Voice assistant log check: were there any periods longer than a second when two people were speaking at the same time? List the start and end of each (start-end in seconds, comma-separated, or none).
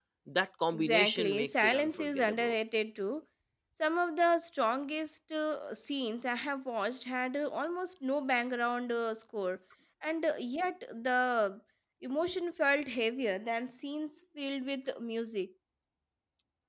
0.7-2.5